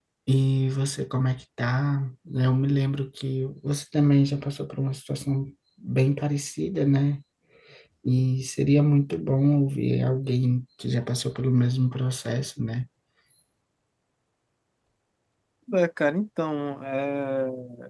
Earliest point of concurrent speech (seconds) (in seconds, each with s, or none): none